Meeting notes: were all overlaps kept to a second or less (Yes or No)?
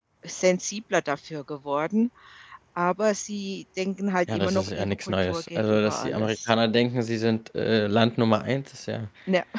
No